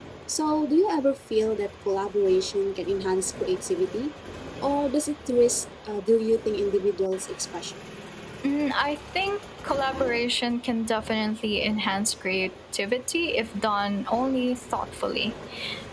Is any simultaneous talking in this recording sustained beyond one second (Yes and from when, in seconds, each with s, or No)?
No